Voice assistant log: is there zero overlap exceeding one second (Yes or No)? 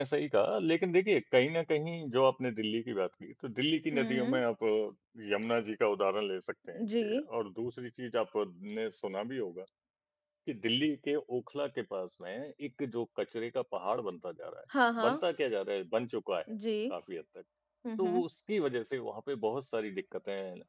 Yes